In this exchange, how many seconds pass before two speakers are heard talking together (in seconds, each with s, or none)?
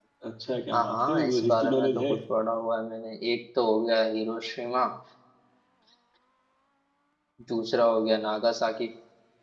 0.7 s